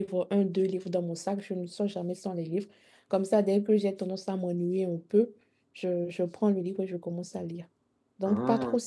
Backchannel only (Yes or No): Yes